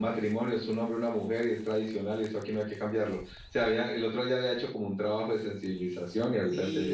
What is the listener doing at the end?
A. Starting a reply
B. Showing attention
A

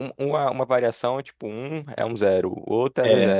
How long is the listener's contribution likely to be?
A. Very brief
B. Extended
B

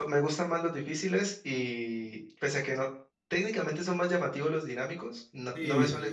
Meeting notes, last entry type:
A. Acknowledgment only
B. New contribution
B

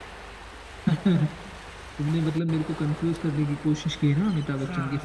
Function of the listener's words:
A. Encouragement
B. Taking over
B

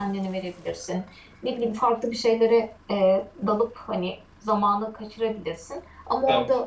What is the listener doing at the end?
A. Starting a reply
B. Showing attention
B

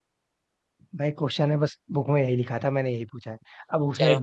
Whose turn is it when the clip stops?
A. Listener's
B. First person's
B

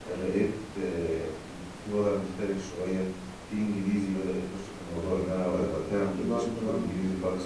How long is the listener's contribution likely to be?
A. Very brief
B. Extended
A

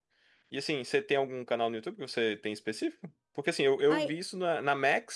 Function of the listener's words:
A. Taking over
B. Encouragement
B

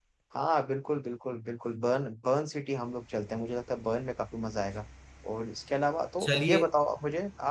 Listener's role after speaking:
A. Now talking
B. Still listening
B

